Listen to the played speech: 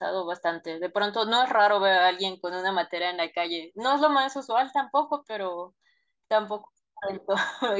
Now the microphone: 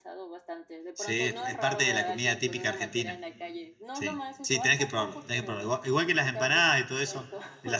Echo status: present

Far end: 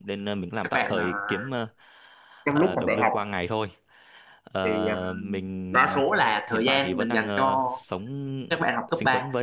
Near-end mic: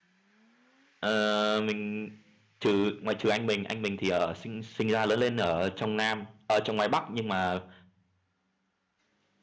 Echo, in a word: none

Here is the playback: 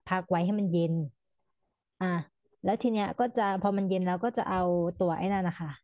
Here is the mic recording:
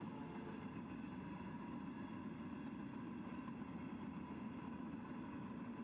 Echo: none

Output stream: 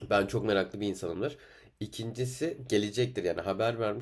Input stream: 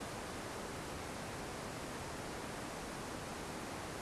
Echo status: none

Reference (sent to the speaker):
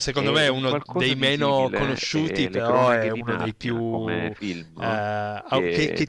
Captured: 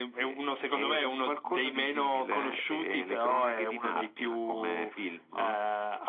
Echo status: present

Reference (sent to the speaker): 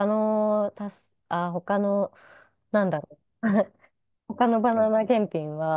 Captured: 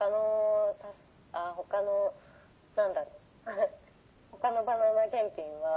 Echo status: present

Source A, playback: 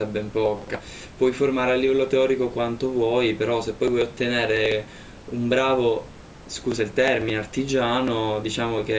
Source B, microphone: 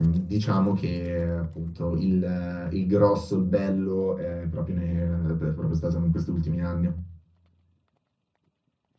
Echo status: none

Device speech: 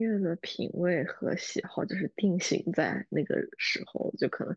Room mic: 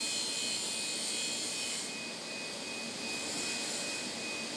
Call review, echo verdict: none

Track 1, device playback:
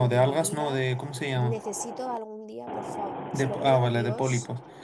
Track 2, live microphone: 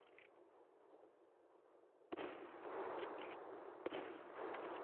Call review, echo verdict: none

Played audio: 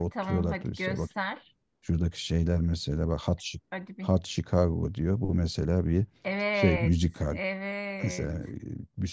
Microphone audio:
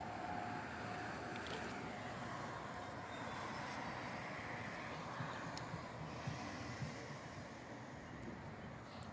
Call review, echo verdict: none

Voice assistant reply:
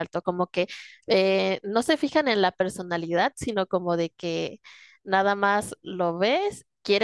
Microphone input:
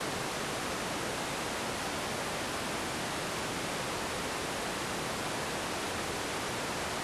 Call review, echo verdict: none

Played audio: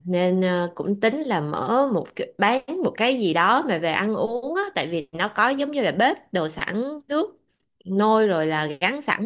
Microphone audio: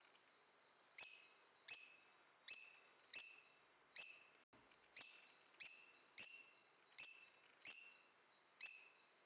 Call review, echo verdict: none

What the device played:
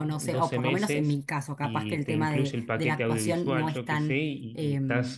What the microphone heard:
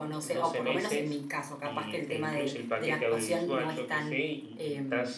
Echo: present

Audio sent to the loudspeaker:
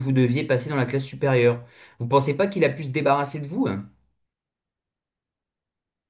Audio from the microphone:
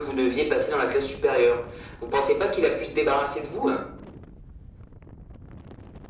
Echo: present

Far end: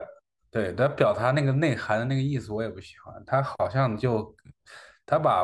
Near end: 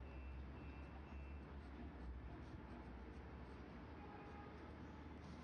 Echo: none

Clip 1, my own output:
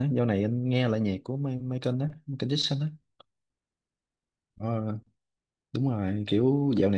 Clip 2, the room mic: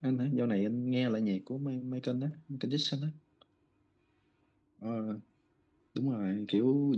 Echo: present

